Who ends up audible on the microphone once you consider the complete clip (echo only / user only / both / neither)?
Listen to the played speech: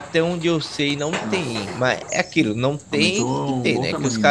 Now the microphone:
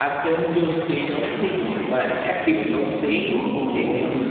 echo only